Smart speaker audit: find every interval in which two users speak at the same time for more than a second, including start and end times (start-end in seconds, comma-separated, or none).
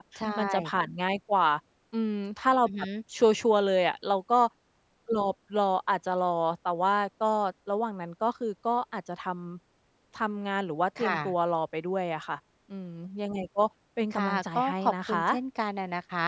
14.1-15.4